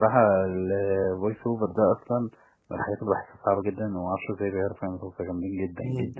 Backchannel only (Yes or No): No